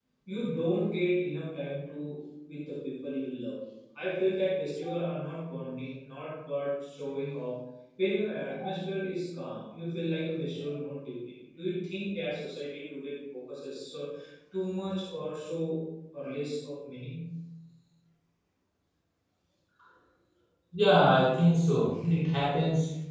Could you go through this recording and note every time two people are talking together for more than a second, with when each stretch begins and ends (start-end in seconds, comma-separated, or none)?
none